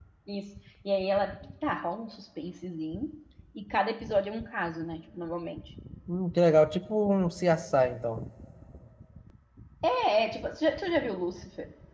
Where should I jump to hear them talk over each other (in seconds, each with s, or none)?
none